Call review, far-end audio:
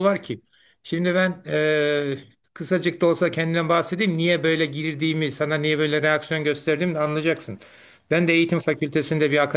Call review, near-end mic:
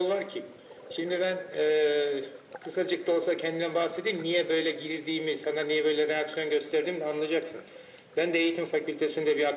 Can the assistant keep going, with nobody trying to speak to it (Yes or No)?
Yes